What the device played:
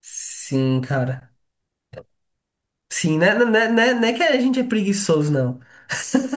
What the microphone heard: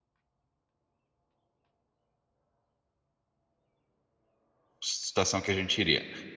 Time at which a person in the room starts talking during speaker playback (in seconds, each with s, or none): 4.8 s